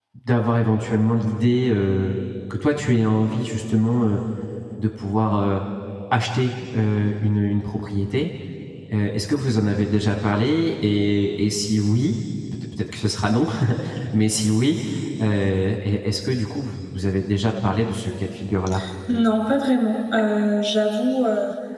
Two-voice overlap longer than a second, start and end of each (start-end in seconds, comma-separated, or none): none